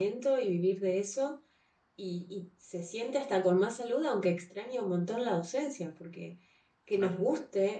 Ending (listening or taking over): listening